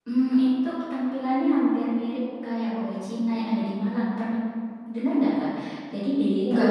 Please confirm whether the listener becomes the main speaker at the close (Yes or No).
No